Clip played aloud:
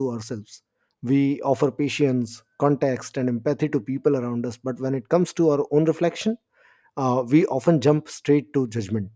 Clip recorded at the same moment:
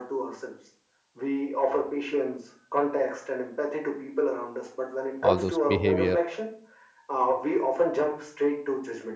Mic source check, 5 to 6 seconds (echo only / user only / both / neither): both